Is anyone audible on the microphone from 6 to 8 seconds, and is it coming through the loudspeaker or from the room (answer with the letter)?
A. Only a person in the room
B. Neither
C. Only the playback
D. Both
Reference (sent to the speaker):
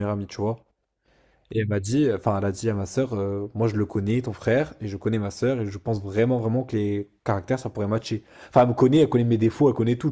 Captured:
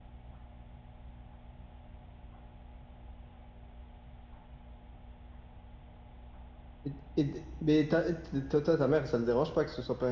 A